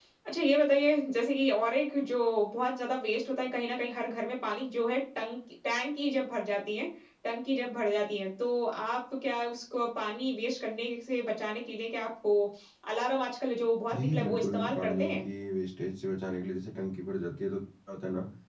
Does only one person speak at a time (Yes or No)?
No